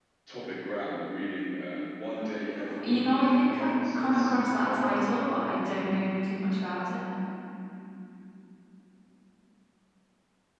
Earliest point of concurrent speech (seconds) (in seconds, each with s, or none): 2.1 s